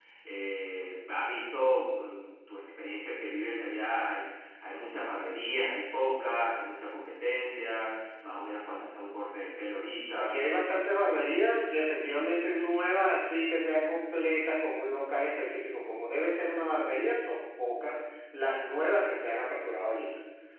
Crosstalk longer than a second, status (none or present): none